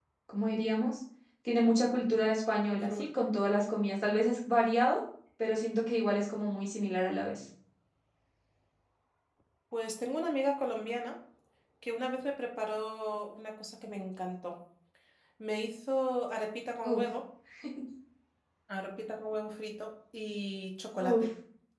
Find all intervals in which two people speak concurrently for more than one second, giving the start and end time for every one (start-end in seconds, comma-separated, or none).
none